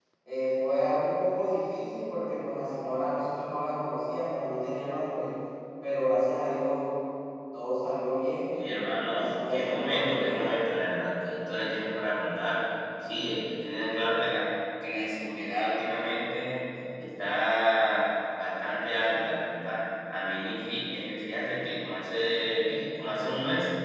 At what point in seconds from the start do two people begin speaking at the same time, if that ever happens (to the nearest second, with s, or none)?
9 s